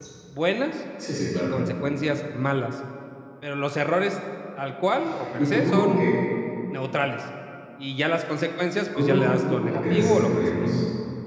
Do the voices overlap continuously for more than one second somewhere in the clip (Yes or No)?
Yes